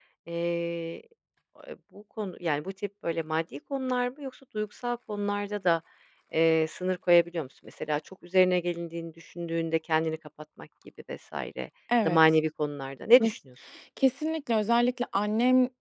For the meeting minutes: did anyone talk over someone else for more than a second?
No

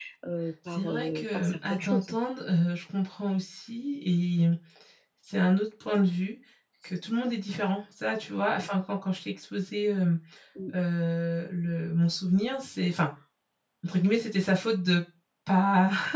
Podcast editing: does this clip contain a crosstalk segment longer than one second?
Yes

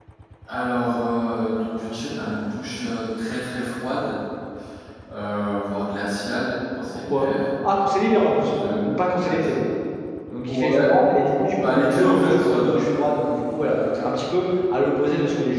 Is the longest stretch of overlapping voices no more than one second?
No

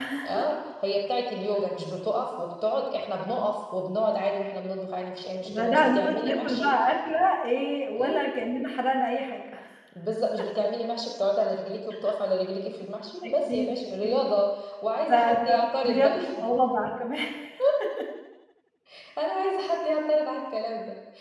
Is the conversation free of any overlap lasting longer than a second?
No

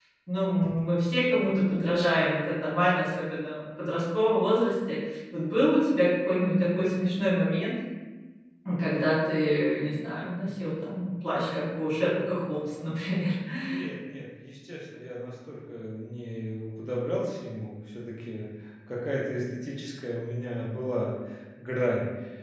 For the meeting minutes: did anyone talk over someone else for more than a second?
No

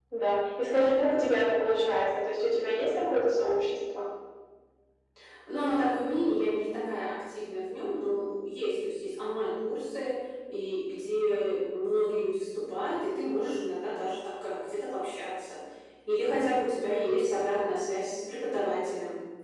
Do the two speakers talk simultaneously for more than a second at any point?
No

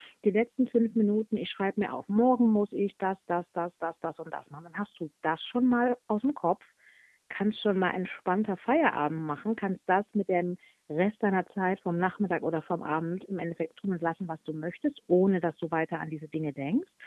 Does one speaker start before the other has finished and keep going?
No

